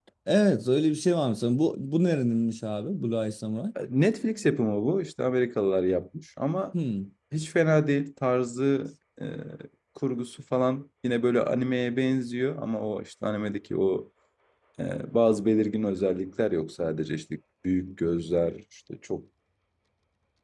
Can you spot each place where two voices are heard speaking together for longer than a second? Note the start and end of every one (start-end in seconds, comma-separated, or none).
none